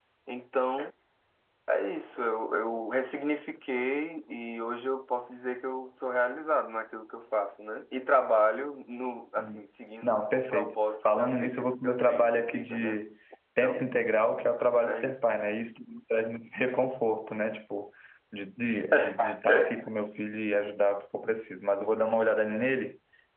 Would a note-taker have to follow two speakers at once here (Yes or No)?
Yes